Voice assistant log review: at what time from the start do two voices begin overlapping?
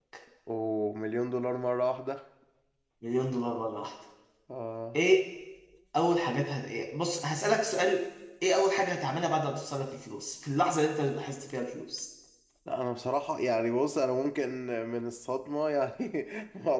none

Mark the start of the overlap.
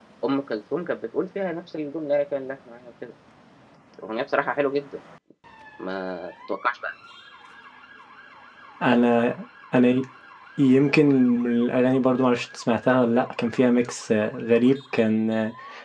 none

